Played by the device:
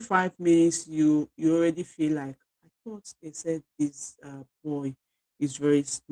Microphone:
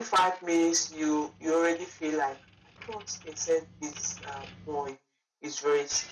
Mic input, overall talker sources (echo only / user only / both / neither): echo only